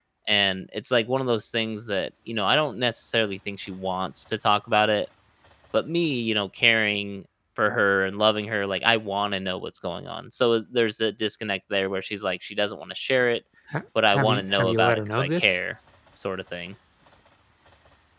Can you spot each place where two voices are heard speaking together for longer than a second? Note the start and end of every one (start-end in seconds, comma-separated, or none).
14.1-15.6